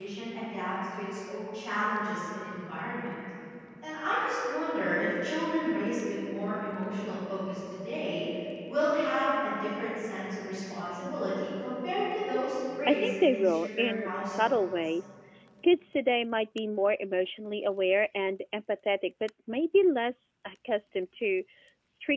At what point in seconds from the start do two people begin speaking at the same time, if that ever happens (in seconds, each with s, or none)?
12.9 s